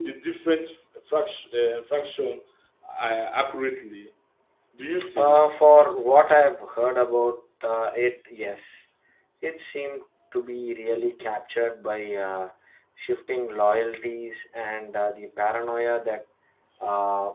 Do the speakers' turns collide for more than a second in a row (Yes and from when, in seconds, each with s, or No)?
No